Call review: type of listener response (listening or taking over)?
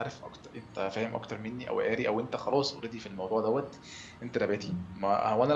listening